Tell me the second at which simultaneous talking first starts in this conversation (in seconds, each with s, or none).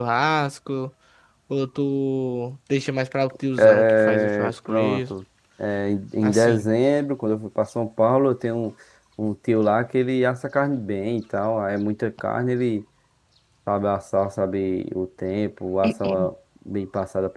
3.8 s